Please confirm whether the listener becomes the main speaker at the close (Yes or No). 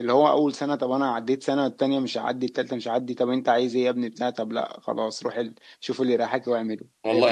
Yes